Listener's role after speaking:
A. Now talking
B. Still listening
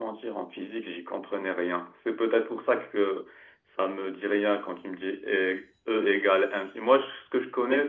B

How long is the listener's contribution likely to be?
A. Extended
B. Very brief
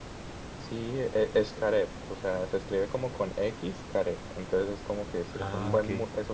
B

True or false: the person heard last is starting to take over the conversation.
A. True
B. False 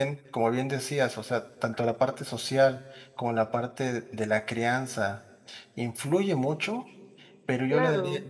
B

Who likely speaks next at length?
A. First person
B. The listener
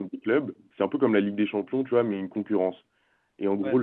A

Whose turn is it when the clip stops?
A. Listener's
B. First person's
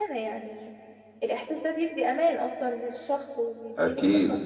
A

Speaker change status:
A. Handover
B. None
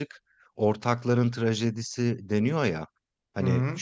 B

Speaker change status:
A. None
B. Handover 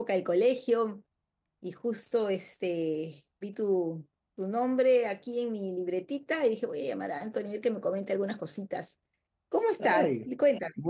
B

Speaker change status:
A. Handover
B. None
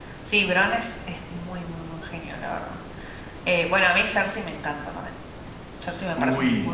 A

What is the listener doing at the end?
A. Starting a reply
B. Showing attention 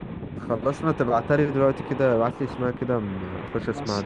A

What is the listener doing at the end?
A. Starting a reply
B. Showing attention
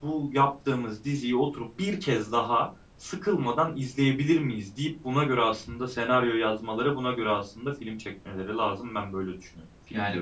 A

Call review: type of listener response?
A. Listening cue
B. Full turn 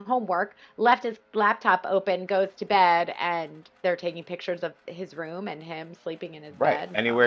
B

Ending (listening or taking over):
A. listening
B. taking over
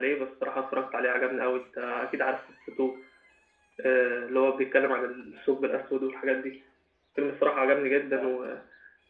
A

